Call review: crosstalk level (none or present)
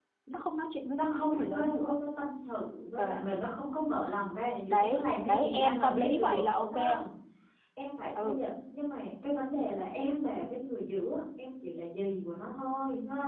present